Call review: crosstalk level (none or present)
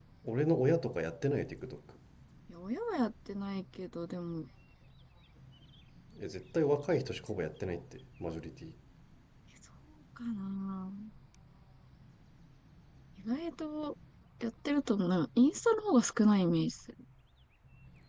none